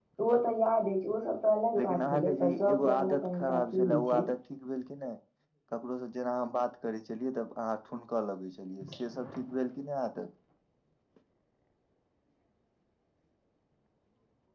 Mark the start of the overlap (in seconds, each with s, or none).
1.8 s